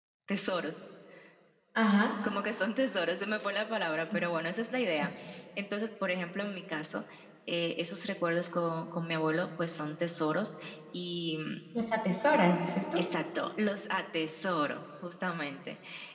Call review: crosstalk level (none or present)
none